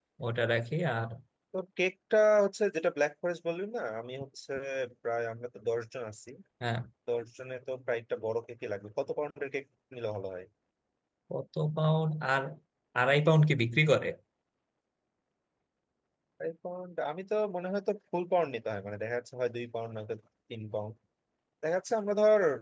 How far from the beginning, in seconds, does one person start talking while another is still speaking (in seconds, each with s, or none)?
none